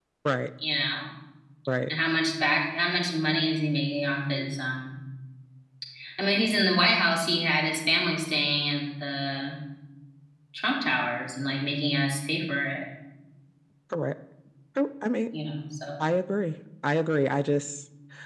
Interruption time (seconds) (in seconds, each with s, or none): none